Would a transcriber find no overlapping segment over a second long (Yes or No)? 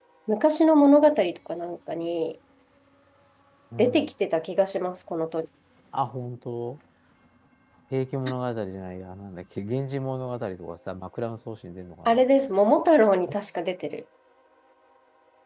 Yes